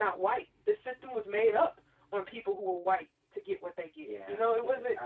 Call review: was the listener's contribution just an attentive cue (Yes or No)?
No